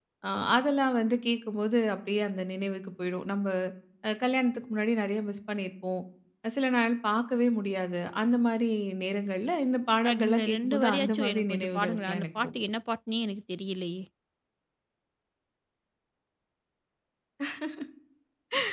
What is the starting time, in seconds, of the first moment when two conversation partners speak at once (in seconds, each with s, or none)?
10.0 s